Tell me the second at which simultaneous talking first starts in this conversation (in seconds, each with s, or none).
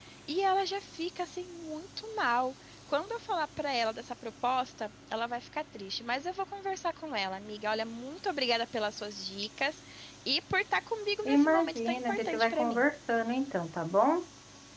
11.2 s